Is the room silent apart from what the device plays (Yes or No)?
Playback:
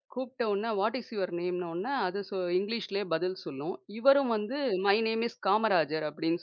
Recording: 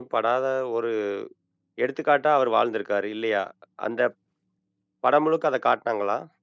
No